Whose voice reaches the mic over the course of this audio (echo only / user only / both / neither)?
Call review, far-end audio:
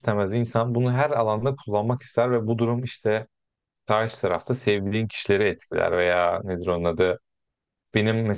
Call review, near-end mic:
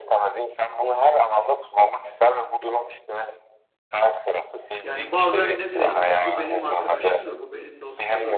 both